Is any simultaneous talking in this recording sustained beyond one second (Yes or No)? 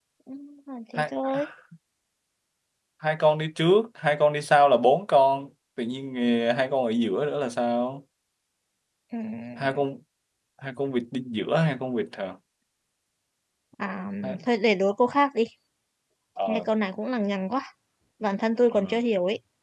No